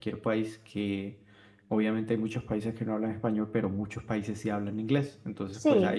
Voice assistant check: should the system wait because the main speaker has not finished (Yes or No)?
Yes